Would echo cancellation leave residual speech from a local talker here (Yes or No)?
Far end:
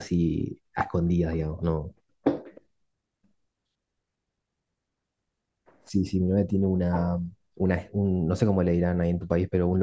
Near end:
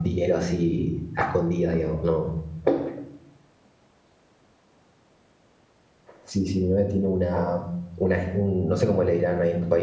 No